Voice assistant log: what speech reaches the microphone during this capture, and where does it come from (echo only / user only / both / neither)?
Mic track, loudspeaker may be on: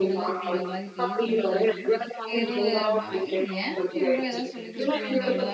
both